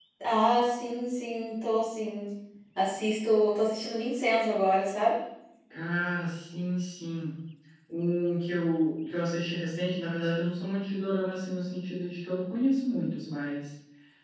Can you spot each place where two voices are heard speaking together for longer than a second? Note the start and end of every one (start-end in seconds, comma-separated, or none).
none